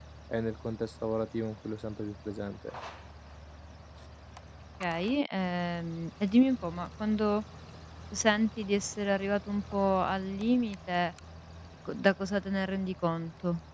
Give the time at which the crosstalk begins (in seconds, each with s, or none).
none